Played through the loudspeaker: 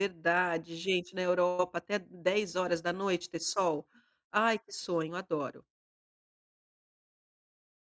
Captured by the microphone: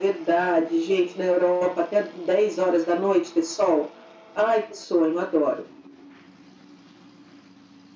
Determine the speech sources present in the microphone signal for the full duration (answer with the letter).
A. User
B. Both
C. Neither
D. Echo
D